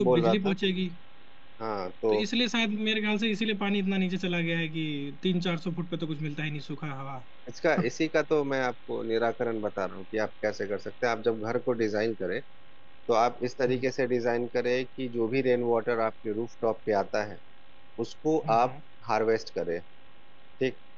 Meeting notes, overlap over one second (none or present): none